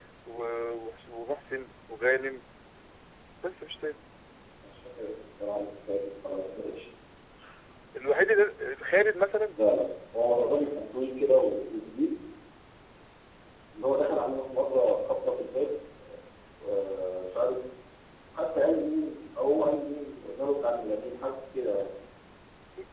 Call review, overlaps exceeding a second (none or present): none